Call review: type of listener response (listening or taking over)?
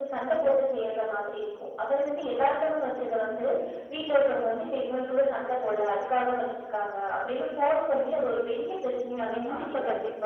taking over